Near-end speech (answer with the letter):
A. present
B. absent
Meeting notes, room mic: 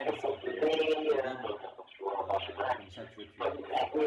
A